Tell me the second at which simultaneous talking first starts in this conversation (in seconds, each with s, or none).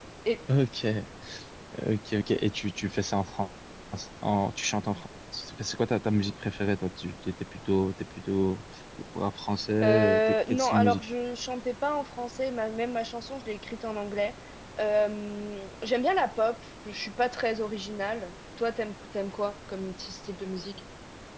9.8 s